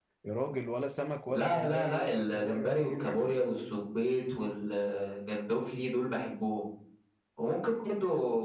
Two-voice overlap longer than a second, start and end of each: 1.3-3.4

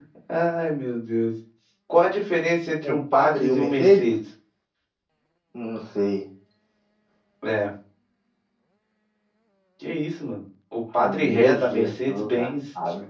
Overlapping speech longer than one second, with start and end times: 2.8-4.0, 11.0-12.3

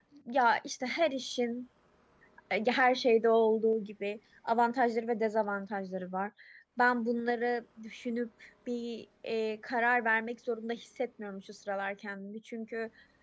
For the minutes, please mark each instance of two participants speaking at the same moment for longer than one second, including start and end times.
none

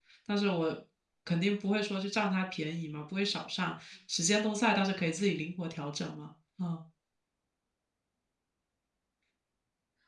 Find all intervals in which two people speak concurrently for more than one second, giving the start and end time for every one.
none

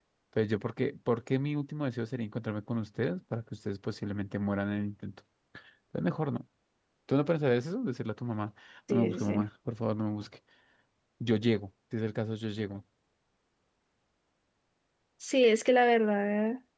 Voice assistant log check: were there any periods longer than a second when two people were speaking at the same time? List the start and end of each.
none

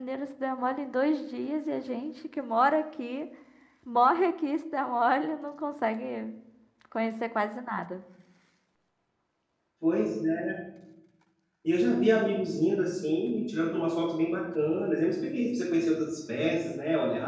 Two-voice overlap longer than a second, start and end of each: none

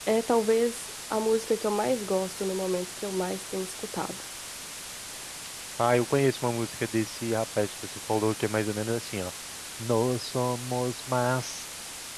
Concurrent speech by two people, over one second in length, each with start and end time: none

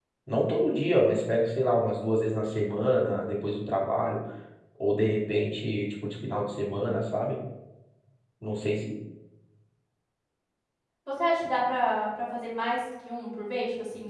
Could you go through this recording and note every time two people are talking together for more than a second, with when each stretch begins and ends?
none

